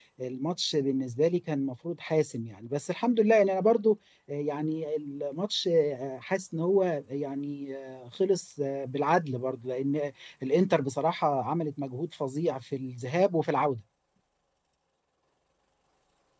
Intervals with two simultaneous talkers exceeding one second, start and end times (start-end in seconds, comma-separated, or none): none